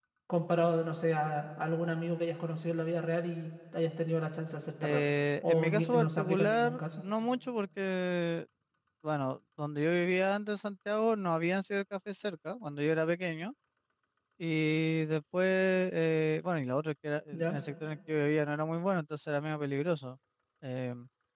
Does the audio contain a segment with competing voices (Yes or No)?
Yes